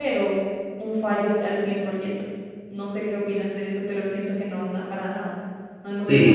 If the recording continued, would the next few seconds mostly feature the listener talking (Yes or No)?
Yes